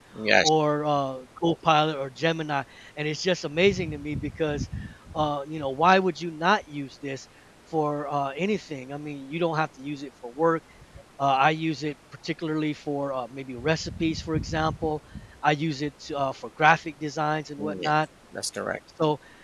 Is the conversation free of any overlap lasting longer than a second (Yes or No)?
Yes